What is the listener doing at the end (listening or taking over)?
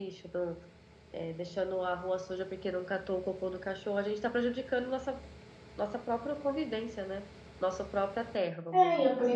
taking over